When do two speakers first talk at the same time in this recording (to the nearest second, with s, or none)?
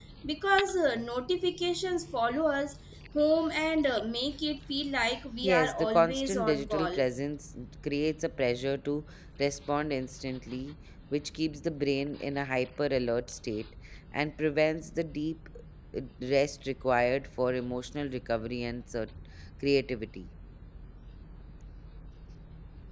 5 s